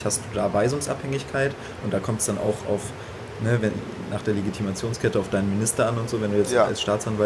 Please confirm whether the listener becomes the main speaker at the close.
No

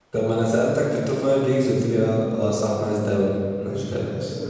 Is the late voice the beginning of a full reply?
Yes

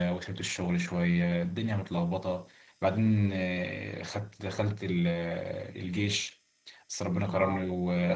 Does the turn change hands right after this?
No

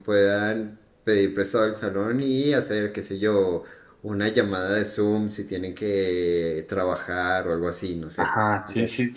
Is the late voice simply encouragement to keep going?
No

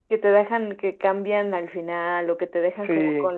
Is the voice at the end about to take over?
Yes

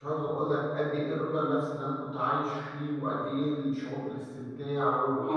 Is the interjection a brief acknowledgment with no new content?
No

